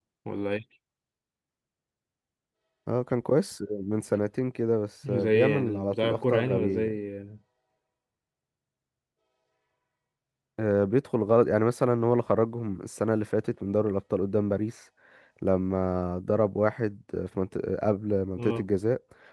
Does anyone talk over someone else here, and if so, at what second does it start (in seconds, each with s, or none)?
5.1 s